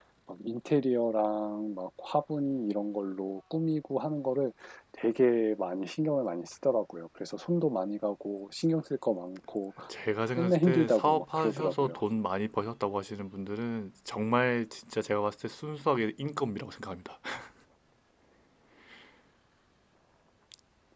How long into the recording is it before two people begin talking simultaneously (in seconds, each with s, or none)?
10.4 s